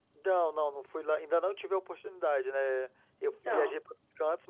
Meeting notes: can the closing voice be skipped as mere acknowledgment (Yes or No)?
Yes